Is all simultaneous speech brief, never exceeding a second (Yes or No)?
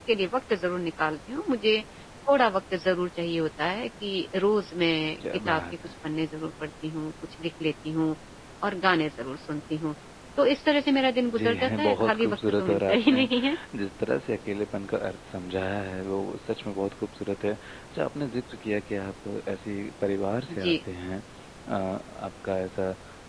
No